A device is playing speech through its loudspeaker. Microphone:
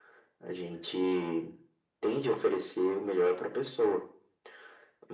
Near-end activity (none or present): none